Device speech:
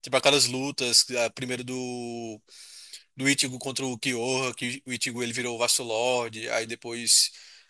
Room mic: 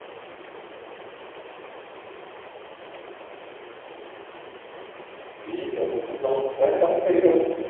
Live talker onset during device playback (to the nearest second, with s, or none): 5 s